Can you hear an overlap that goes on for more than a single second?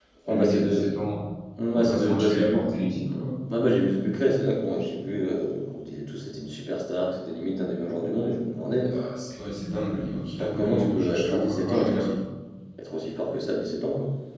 Yes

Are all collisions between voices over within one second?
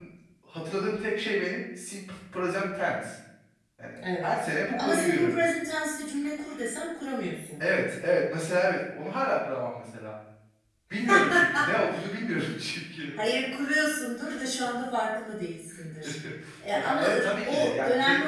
No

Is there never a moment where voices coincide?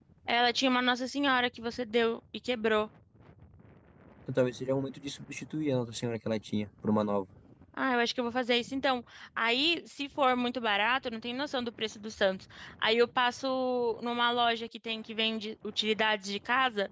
Yes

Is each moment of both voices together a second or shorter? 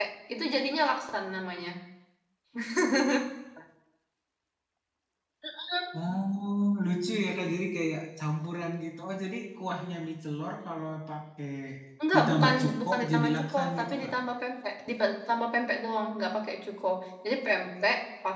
No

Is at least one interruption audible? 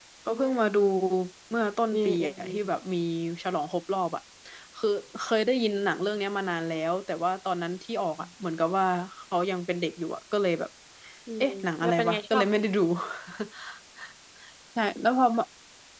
Yes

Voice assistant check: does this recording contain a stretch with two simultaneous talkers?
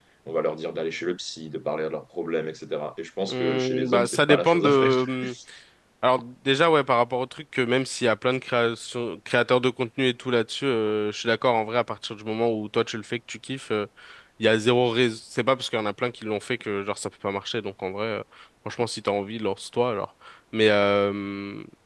Yes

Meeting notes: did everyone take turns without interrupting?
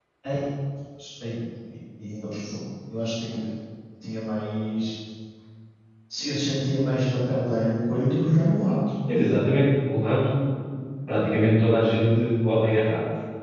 Yes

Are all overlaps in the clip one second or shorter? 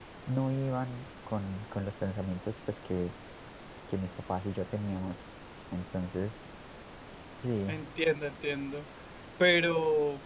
Yes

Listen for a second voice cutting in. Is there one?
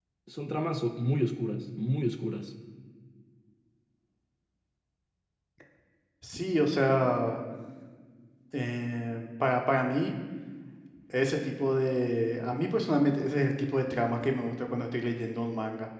No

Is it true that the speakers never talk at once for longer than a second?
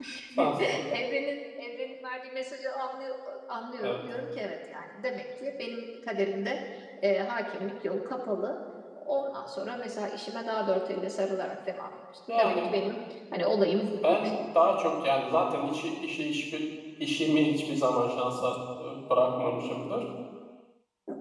Yes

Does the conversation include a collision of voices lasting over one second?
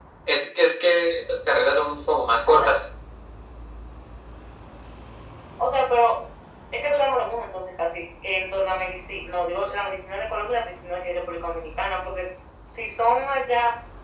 No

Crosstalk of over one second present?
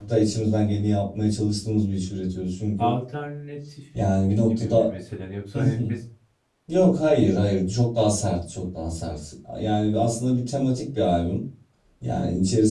No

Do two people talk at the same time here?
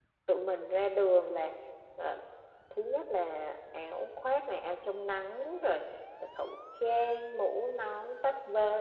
No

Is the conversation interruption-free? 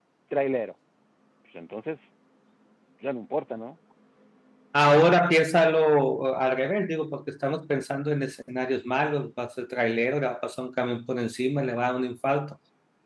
Yes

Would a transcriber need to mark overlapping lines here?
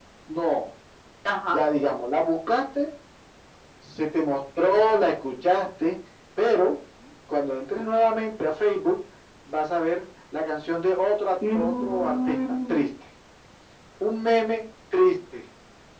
Yes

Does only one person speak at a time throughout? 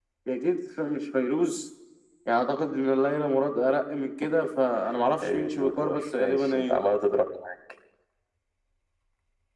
No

